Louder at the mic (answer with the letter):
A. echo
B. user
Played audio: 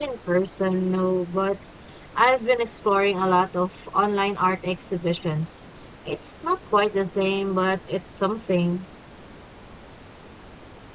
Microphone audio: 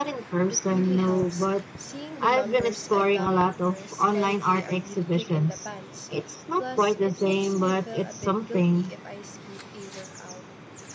A